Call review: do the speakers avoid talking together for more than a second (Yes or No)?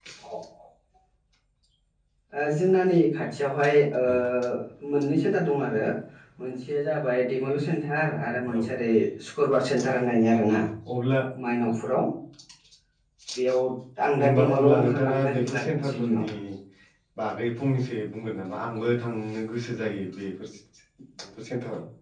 No